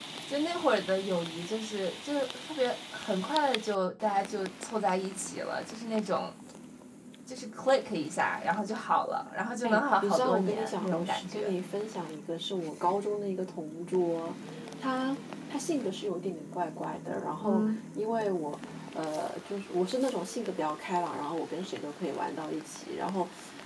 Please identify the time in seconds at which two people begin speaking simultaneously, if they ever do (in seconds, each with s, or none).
9.6 s